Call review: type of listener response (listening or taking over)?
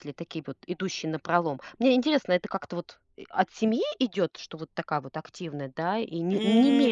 taking over